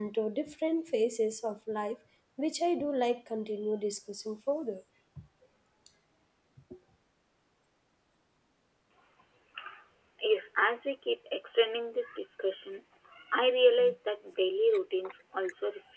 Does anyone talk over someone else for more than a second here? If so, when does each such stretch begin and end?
none

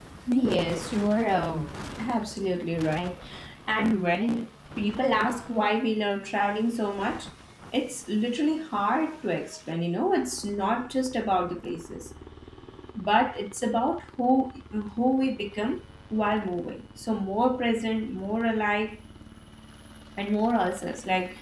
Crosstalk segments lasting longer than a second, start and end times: none

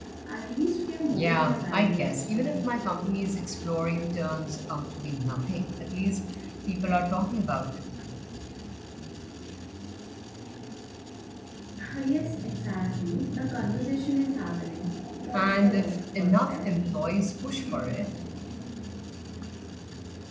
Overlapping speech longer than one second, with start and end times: 1.1-2.6, 15.3-16.7

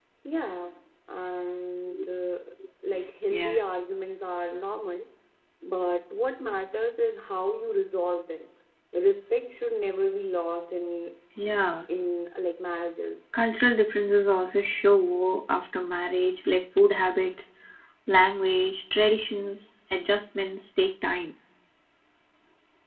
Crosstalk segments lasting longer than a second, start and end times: none

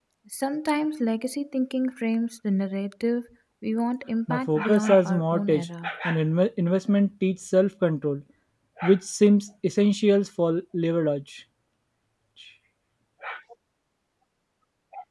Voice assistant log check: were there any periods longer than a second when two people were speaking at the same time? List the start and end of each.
4.3-5.9

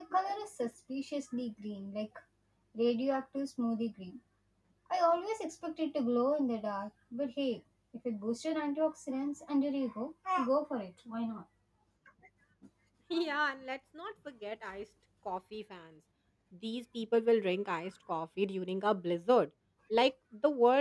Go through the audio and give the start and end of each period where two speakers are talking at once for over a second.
none

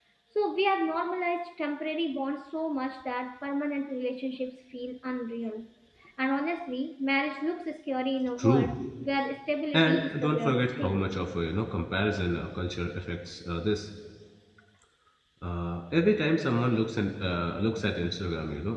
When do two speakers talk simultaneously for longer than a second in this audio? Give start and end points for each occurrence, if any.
9.7-11.0

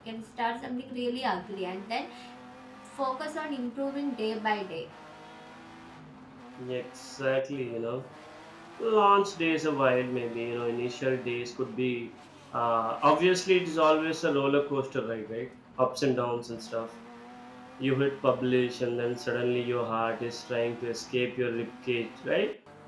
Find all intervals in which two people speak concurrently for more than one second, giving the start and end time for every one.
none

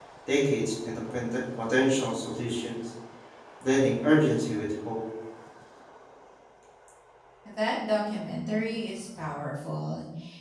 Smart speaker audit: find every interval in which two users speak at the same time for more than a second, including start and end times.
none

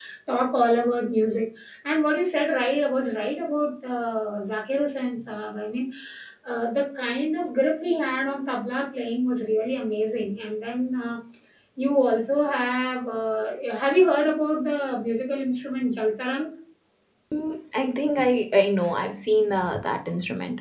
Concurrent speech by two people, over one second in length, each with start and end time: none

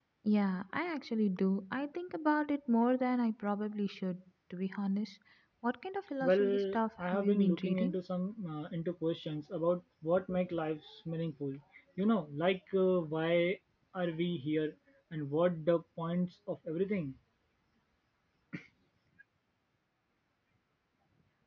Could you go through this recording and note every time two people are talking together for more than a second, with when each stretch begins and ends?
6.2-8.0

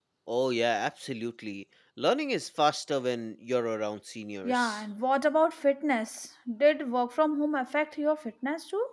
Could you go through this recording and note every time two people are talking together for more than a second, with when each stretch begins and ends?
none

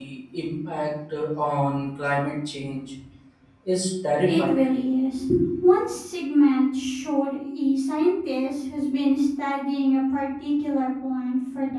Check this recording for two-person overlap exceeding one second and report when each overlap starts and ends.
none

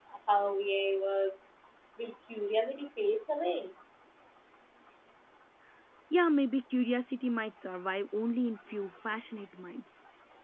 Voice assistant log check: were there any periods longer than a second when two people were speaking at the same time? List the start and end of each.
none

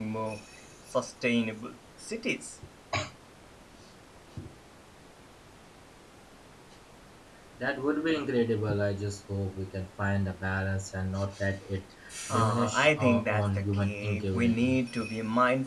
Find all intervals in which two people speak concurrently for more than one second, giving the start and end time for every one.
12.3-14.8

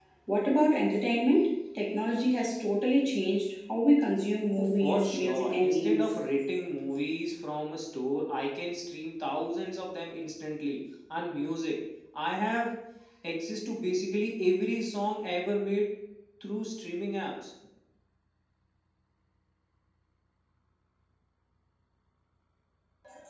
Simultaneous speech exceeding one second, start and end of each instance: 4.6-6.1

